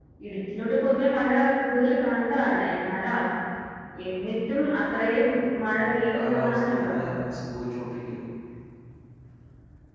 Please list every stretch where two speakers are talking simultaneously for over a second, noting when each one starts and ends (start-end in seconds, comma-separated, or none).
5.8-7.2